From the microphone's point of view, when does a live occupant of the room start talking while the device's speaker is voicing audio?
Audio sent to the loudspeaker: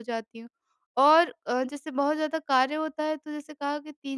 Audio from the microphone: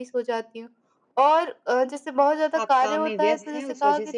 2.6 s

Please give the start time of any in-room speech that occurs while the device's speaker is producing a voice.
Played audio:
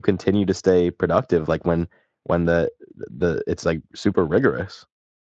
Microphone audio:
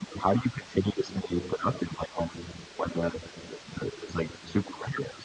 none

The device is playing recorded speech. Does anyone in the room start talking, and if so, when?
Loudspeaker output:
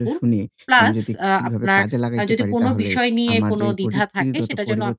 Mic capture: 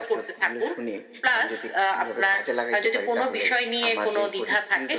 none

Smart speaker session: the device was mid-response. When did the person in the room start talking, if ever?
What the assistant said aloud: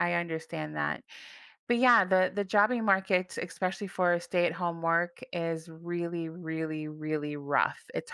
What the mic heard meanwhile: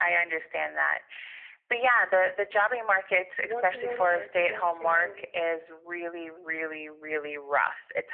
3.4 s

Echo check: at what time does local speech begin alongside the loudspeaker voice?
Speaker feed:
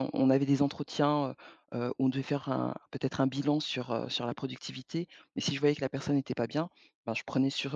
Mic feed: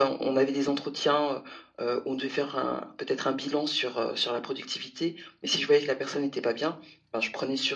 none

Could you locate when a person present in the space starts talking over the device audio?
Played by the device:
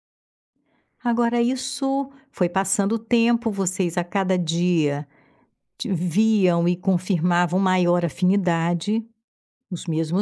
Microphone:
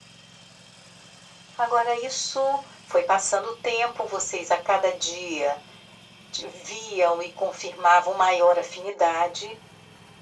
none

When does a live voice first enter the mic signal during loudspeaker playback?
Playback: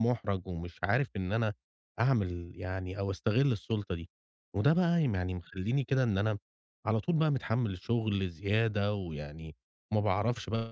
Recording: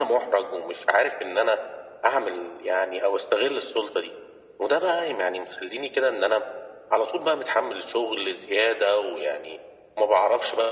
none

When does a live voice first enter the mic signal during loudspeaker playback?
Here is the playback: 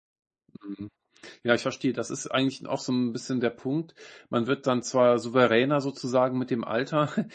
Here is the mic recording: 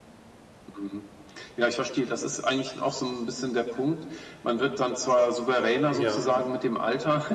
5.9 s

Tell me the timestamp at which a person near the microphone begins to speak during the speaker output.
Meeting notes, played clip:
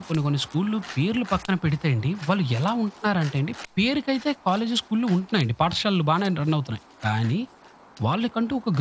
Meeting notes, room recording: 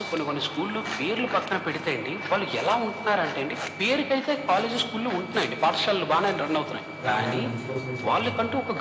7.0 s

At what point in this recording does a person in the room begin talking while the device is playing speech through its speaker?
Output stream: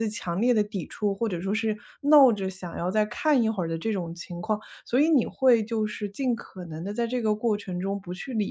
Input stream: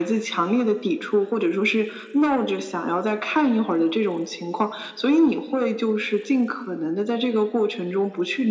none

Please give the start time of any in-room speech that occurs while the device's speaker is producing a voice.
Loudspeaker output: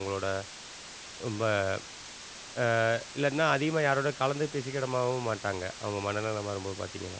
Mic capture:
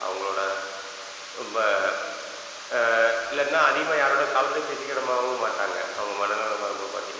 none

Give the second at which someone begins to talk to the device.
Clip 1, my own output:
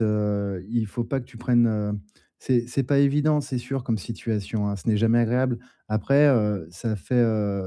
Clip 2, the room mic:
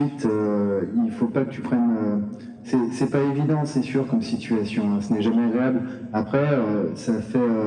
none

